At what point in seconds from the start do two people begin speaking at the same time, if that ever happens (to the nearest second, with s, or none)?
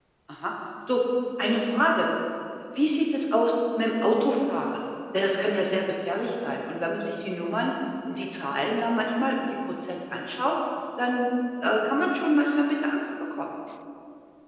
none